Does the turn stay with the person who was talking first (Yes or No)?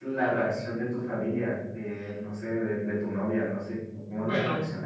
No